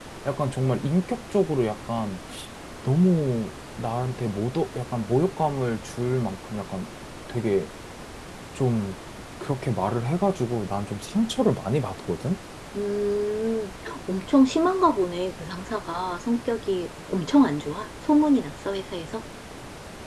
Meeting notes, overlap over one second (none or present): none